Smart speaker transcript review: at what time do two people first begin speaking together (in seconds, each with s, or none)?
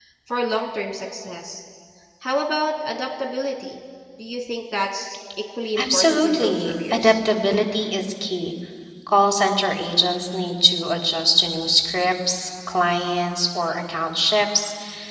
5.8 s